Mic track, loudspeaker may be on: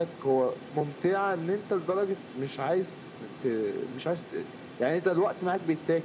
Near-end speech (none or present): none